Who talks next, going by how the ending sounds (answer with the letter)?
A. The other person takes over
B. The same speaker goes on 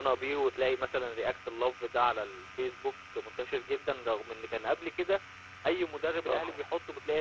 B